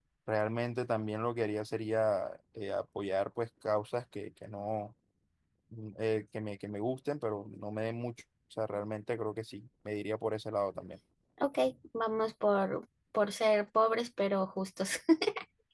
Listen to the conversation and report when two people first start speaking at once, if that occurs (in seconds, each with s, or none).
none